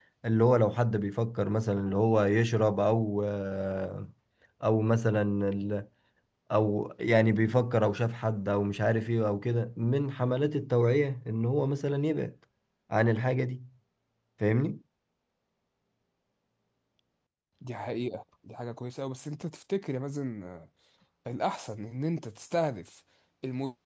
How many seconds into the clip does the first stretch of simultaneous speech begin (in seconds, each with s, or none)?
none